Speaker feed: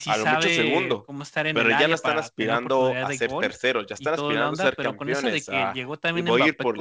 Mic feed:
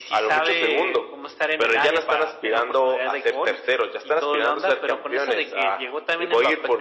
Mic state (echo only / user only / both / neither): echo only